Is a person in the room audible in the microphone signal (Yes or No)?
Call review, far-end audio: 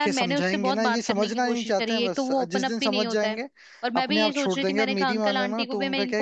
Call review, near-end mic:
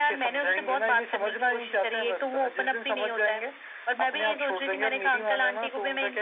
No